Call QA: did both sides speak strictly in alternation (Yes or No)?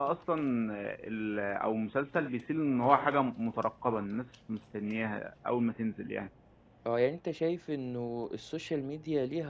Yes